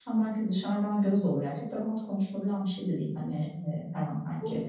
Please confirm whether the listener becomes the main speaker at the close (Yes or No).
No